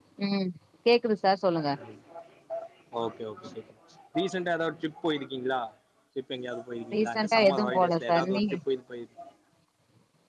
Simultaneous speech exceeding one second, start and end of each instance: 6.9-8.5

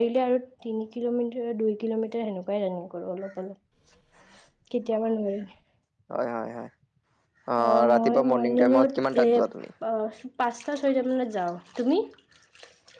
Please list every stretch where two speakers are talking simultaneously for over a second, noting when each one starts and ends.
7.6-9.4

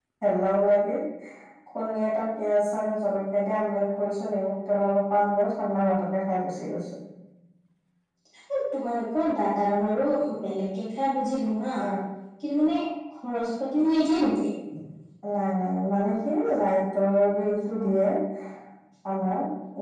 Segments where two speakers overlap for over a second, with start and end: none

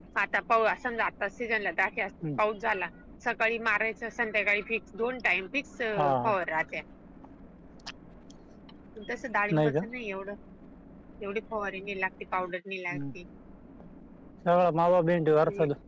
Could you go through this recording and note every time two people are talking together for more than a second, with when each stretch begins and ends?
none

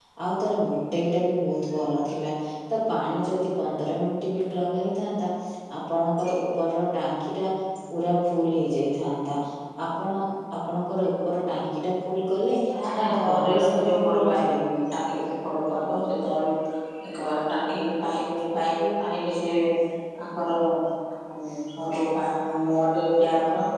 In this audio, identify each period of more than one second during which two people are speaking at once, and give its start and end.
13.0-14.6

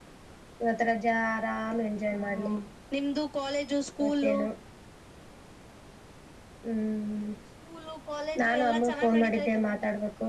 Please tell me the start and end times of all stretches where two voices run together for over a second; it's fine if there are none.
8.4-9.7

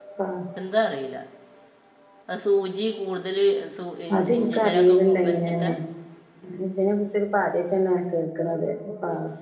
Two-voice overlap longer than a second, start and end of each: 4.4-5.6

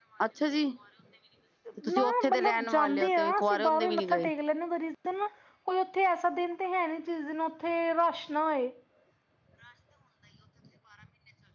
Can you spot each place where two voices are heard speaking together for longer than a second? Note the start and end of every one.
1.9-4.3

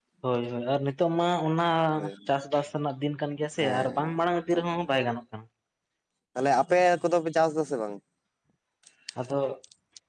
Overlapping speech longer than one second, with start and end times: none

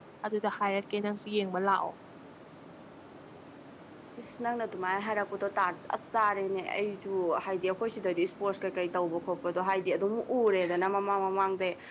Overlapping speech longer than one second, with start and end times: none

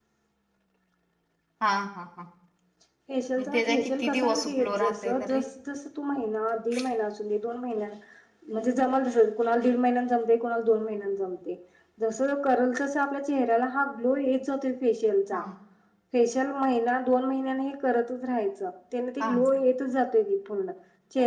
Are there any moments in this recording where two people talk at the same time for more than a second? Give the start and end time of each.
3.4-5.4

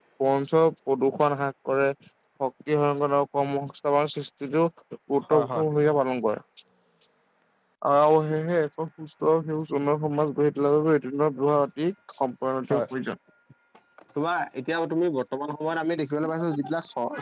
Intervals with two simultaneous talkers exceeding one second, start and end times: none

